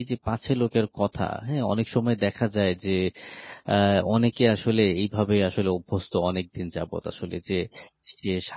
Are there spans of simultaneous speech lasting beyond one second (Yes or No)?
No